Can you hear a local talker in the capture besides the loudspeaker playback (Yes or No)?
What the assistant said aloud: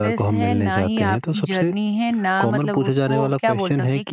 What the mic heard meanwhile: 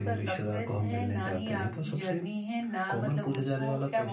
No